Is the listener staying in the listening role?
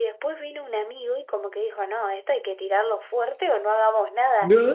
Yes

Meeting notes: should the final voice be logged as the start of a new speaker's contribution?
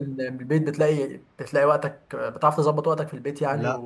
Yes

